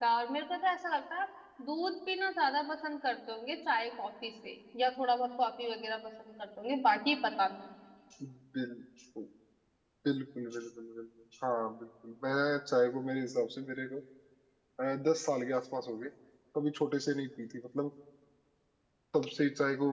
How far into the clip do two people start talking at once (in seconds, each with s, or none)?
none